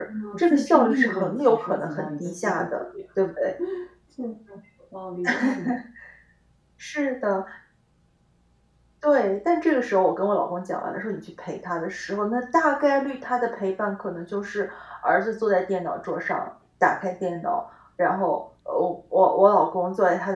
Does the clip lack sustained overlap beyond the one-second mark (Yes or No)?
No